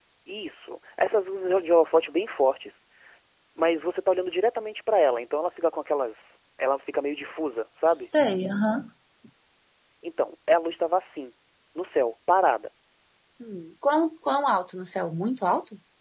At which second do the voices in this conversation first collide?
none

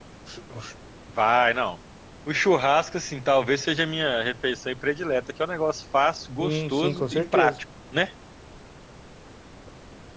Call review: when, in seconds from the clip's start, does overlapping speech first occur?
6 s

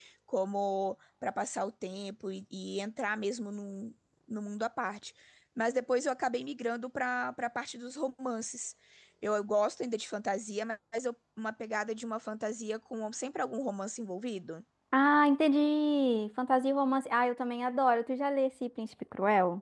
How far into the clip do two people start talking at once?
none

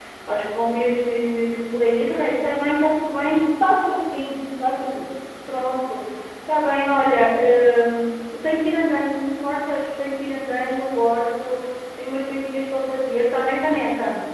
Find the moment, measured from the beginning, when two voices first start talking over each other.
none

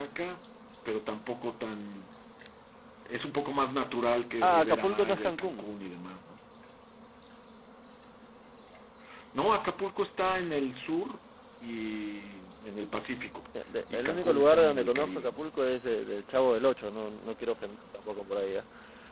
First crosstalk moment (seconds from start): 4 s

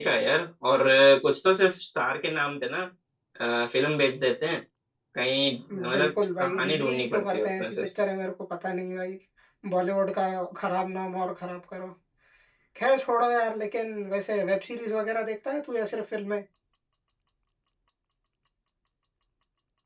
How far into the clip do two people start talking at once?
6 s

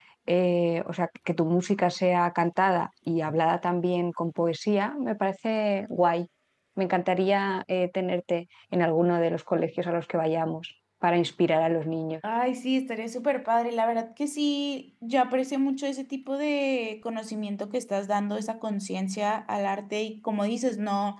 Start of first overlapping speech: none

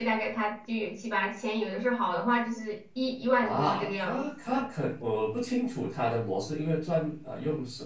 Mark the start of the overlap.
3 s

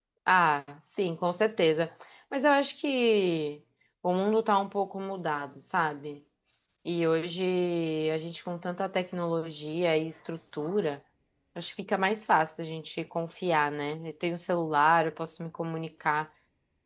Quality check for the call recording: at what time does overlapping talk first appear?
none

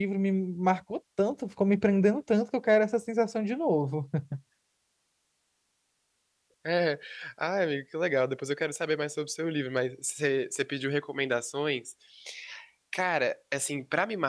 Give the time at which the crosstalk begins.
none

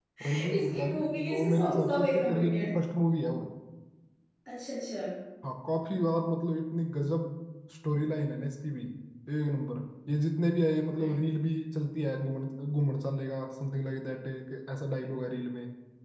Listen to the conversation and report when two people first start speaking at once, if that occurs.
1 s

